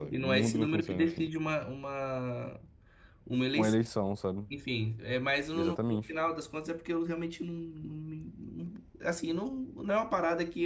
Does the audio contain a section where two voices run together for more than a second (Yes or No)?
Yes